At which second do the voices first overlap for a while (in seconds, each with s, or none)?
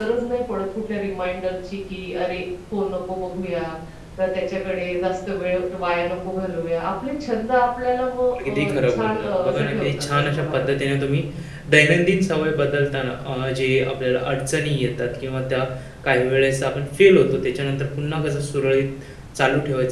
8.4 s